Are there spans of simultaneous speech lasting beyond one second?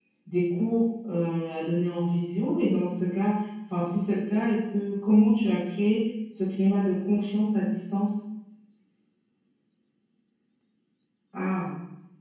No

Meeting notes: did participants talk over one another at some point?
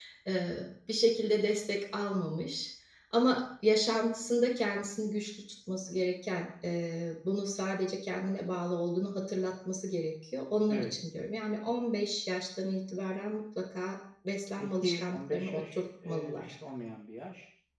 Yes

